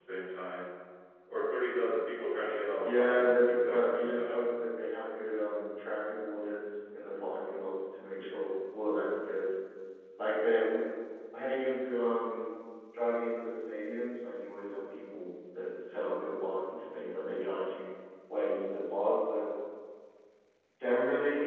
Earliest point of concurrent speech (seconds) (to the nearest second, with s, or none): 3 s